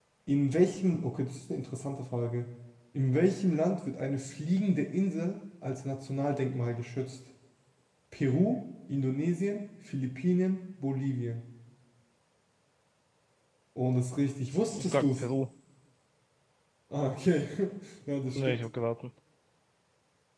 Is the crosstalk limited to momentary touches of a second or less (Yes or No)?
Yes